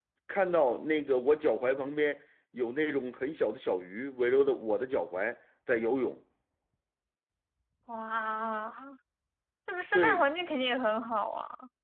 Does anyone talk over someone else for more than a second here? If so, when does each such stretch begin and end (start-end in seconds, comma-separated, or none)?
none